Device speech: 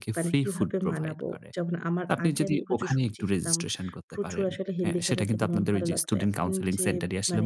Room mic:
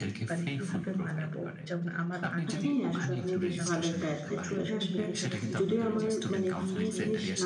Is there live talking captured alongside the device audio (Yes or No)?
Yes